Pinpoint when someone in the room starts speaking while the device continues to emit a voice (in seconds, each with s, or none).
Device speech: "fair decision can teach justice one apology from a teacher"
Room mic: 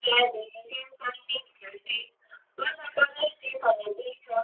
none